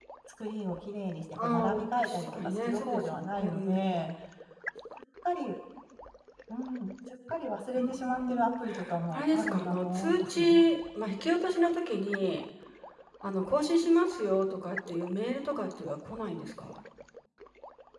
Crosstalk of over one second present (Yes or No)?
Yes